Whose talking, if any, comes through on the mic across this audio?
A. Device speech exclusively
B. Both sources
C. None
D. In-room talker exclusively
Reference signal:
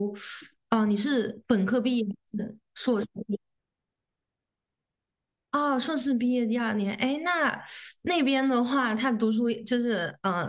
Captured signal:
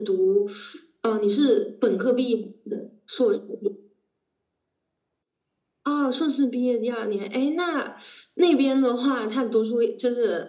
A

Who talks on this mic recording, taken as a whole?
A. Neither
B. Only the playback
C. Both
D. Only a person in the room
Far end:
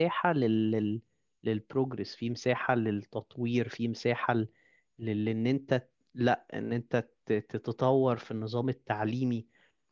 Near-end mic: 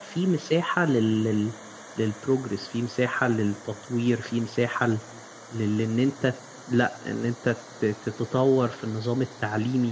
B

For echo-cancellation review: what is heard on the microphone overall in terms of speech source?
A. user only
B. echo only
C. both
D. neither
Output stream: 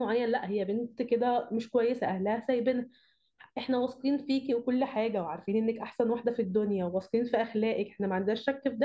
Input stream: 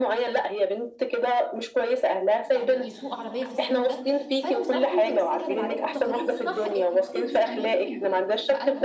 C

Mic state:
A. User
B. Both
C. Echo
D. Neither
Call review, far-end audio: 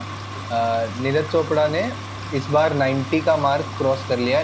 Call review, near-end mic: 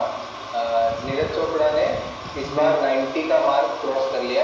B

